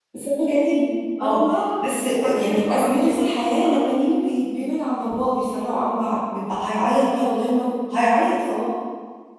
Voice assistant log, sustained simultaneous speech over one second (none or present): present